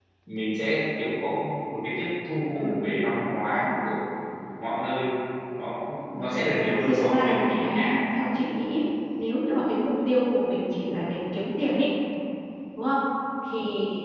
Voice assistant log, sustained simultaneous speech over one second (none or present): present